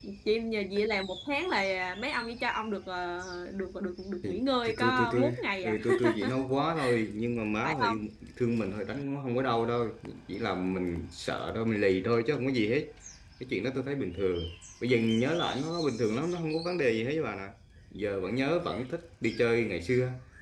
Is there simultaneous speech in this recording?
Yes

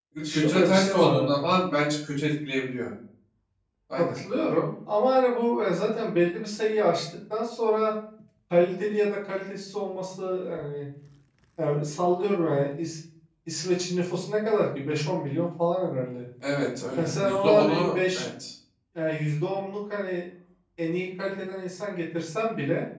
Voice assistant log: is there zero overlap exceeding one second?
No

